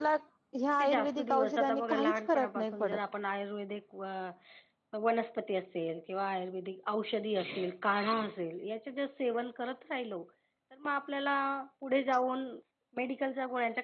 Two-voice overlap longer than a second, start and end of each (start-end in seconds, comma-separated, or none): 0.8-3.0